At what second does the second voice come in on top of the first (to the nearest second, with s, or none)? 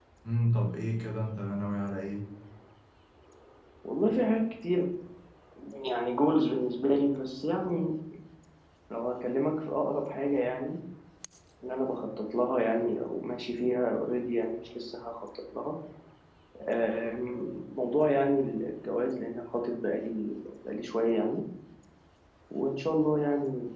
none